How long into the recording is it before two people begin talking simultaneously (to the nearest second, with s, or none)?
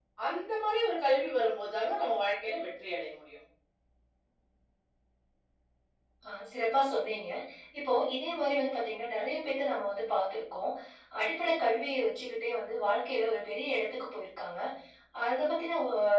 none